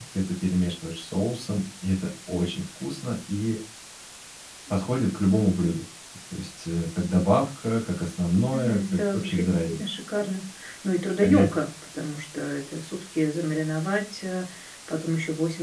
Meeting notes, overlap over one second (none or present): present